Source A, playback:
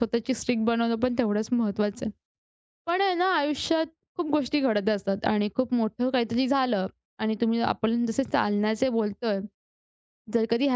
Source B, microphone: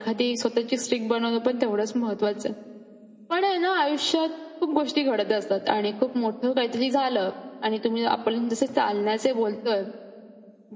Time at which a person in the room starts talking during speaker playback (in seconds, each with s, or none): none